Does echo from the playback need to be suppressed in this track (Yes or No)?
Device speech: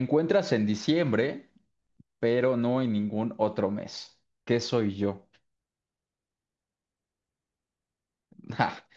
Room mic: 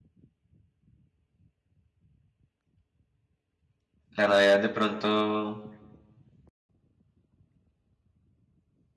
No